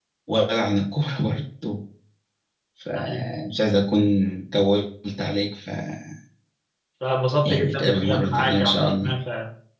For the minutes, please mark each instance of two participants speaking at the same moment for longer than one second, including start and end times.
7.4-9.1

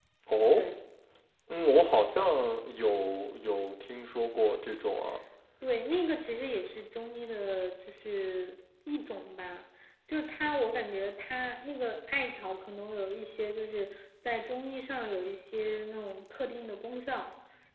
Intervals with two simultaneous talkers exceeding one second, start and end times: none

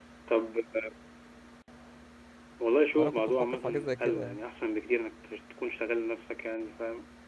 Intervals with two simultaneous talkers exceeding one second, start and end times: 3.0-4.4

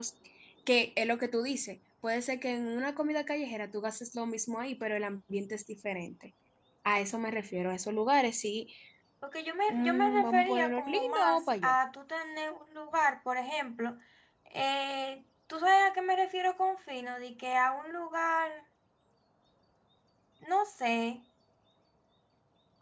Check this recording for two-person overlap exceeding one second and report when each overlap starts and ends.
9.7-11.8

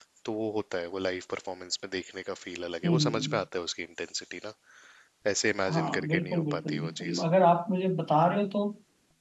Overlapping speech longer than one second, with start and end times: 5.7-7.2

